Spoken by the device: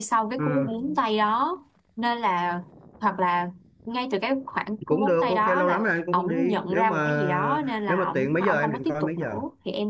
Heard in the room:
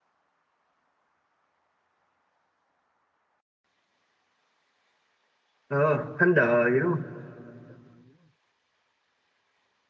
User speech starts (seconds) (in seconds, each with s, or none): 5.7 s